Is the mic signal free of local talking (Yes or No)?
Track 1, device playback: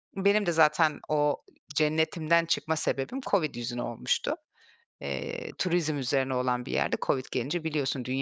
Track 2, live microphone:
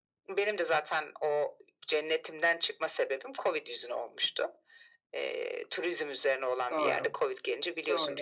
No